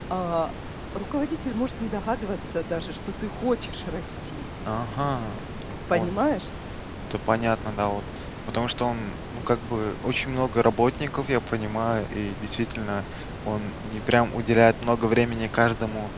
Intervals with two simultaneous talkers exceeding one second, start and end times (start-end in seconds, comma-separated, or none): none